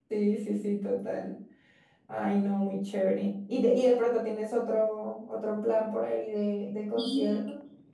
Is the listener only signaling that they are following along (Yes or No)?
No